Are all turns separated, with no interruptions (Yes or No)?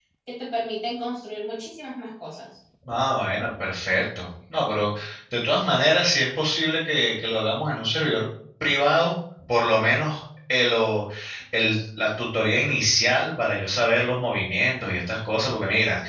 Yes